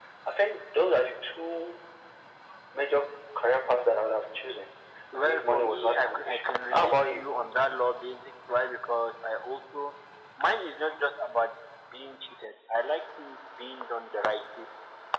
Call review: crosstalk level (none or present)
present